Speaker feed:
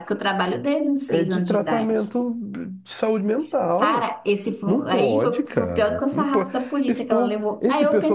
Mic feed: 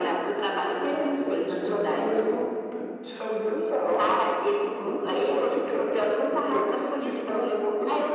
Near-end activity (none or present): none